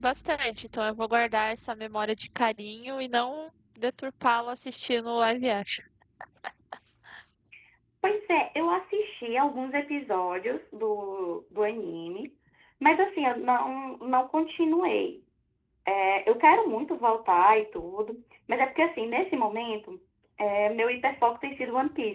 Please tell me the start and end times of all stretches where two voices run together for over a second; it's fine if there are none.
none

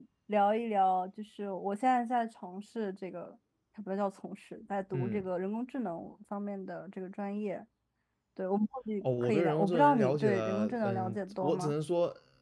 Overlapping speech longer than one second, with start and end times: 9.0-11.7

